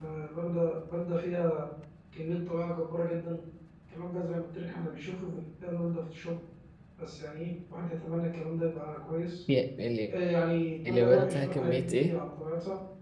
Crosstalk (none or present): present